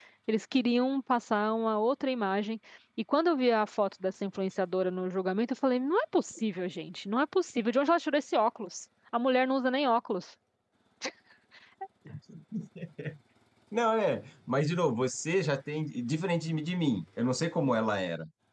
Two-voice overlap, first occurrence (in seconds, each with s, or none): none